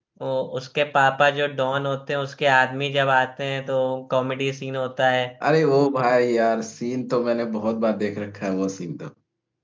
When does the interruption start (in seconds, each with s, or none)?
none